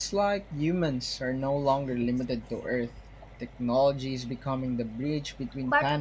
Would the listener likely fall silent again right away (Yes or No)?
No